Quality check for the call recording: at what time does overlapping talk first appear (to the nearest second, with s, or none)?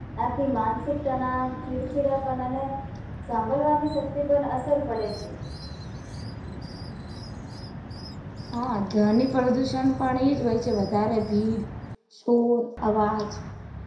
none